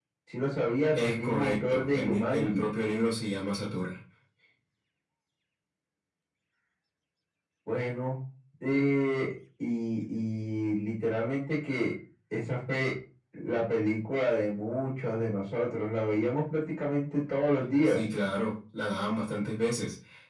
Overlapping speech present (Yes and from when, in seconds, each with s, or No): Yes, from 0.9 s